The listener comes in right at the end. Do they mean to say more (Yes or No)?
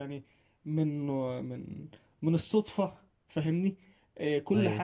No